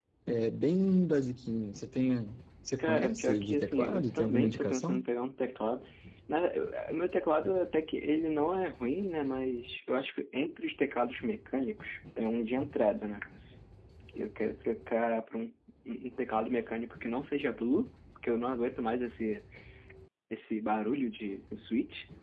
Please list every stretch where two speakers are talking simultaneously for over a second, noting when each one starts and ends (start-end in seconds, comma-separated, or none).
2.8-5.0